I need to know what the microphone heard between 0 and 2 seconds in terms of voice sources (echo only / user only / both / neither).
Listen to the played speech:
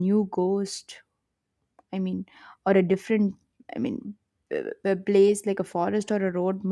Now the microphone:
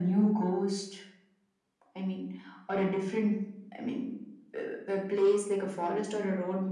echo only